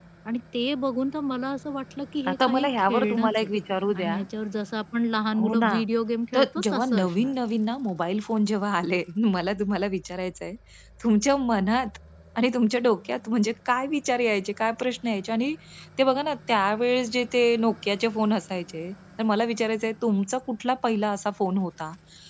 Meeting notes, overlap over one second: present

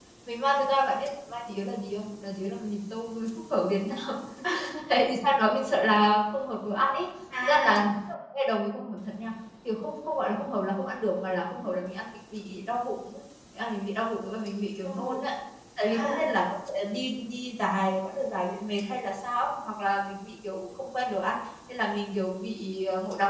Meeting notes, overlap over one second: none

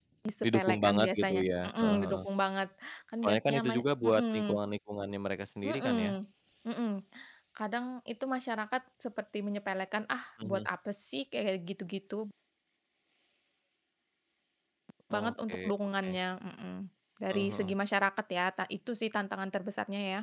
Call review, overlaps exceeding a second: present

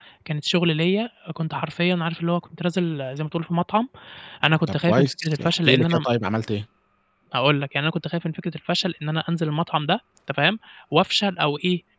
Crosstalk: present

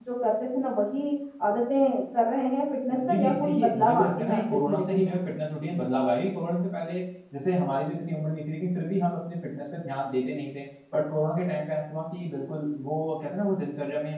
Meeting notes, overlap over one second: present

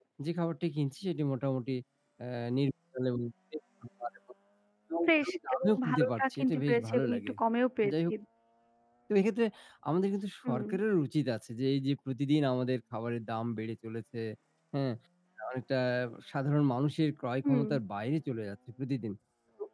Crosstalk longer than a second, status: present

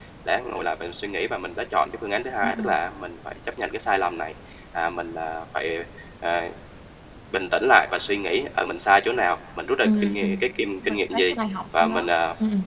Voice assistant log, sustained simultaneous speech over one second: none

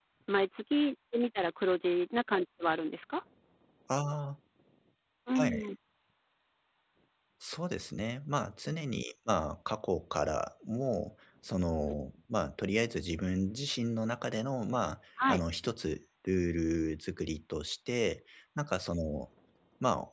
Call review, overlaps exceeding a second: none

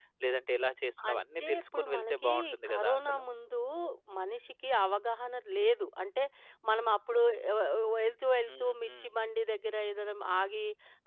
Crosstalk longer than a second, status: present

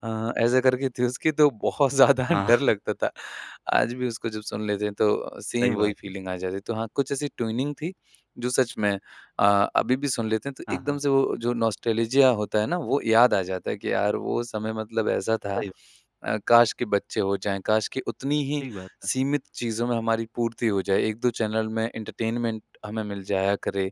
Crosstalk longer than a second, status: none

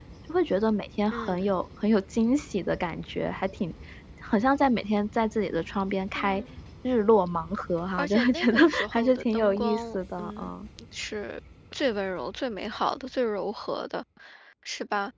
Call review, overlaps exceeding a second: present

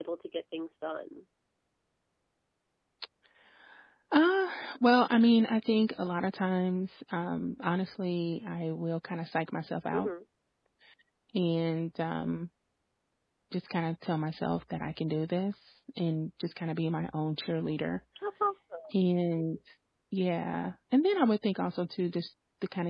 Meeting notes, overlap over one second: none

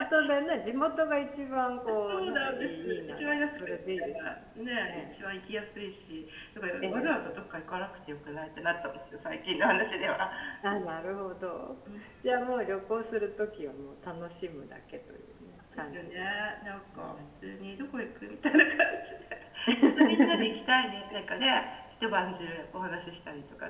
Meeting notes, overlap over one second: present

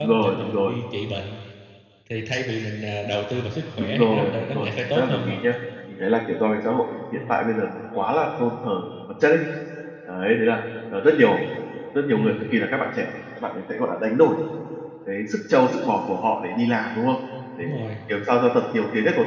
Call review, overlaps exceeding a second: present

